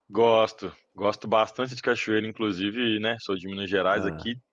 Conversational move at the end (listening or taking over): listening